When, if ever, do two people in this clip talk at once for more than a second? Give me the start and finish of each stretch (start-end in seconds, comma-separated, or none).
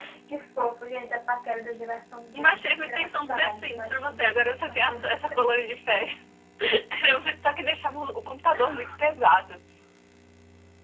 2.4-5.3